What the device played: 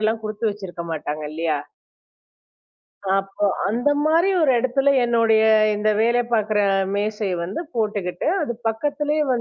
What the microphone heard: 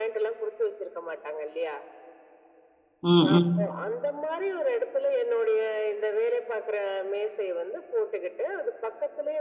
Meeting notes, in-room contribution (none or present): present